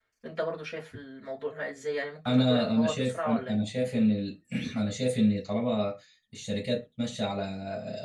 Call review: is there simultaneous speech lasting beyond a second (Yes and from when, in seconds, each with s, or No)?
Yes, from 2.2 s